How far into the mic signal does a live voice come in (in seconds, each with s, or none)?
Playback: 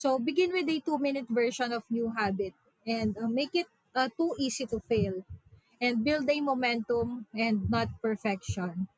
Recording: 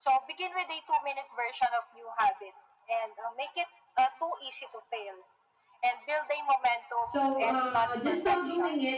7.1 s